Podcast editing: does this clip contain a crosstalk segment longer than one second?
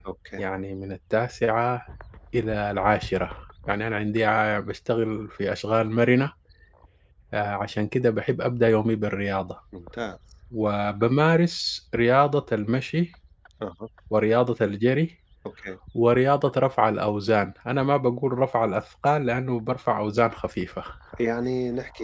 No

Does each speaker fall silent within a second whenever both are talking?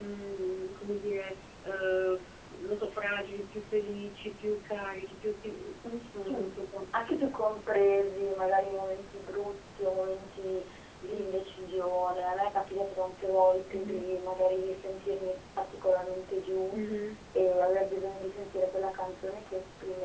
Yes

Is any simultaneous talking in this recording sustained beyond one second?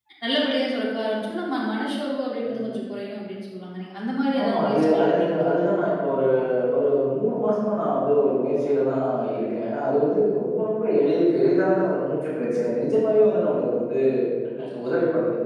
Yes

